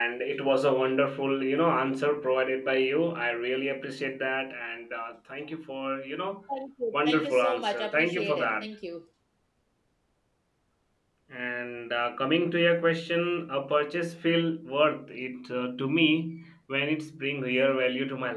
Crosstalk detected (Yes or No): Yes